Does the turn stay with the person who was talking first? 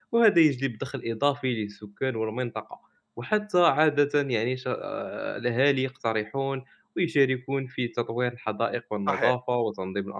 Yes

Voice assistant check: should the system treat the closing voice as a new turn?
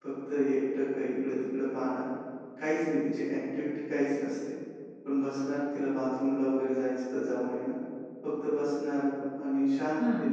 No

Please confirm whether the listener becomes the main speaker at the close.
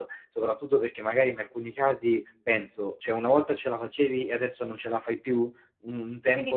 Yes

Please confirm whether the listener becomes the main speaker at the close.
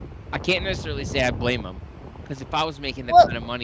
No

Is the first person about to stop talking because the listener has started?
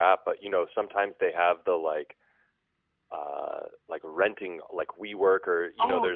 No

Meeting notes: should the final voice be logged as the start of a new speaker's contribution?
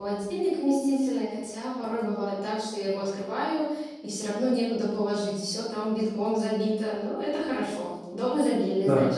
Yes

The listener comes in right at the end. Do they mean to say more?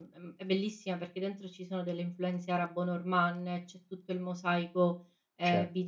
Yes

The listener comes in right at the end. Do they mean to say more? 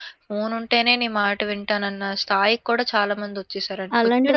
Yes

